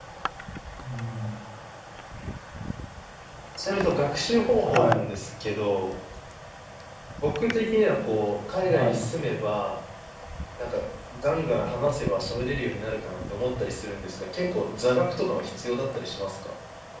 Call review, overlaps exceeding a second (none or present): none